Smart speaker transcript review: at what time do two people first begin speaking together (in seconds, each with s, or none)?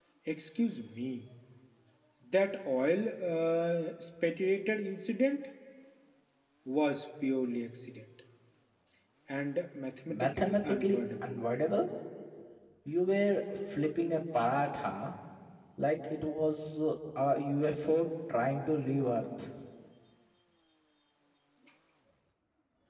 10.1 s